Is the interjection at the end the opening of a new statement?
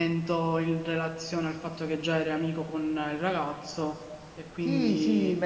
Yes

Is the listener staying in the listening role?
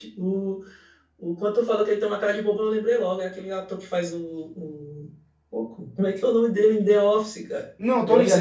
No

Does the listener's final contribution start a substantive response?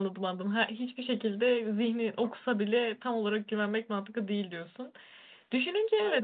No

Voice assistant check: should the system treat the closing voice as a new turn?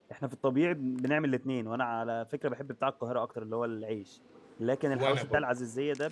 No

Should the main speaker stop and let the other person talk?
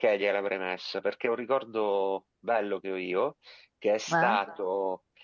No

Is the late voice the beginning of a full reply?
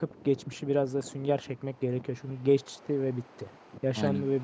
Yes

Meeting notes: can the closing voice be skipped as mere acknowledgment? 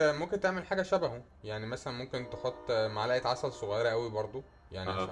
Yes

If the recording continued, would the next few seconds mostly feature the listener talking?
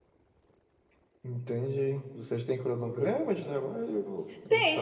Yes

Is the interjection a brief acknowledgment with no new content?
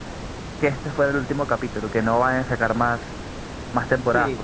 No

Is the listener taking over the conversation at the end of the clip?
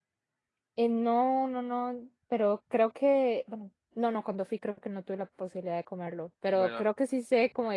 No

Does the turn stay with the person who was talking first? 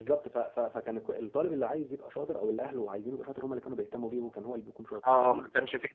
No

